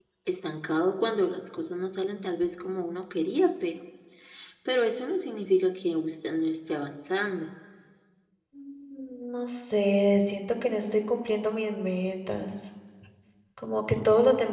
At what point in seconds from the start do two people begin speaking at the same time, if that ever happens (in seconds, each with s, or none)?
none